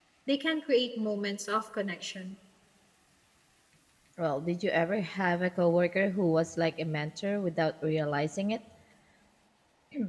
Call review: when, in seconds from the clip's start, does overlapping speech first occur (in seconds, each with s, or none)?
none